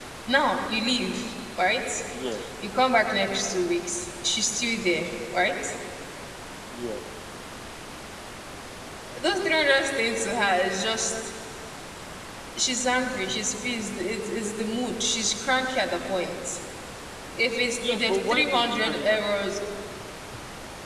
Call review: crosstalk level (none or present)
present